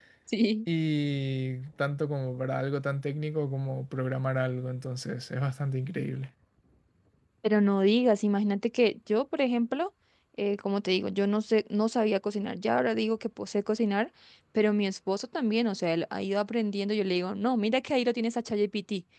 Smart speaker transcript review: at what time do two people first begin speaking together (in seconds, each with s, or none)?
none